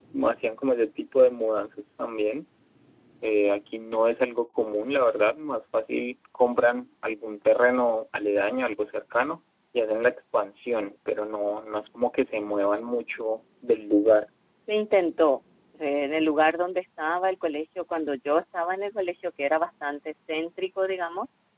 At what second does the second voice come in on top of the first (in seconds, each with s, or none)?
none